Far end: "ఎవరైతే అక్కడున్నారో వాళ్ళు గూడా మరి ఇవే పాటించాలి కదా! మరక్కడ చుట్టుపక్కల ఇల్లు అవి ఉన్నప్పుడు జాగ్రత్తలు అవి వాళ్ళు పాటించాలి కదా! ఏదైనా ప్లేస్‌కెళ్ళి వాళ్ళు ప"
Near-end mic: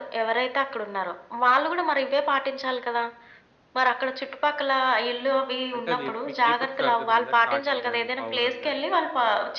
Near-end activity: present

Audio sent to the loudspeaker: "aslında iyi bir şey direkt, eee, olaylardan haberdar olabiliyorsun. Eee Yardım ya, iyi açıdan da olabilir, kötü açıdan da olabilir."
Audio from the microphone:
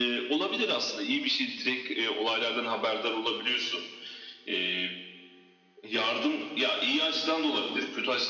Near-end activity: none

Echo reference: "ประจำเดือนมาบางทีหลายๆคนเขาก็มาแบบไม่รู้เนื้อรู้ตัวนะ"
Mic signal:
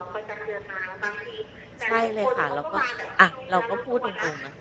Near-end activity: present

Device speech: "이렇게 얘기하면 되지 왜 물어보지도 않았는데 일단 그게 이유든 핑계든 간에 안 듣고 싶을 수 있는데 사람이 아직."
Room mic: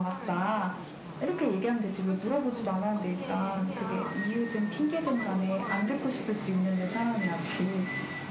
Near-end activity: present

